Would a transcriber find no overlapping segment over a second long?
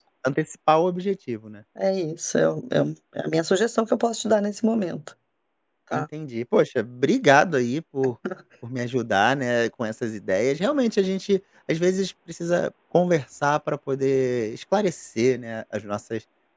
Yes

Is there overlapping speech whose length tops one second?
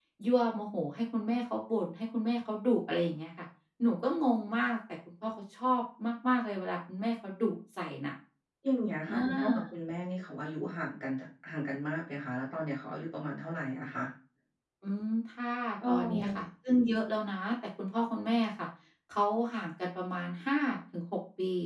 No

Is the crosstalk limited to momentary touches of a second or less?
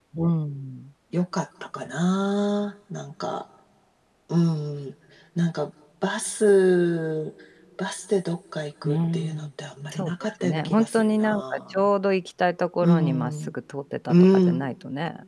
No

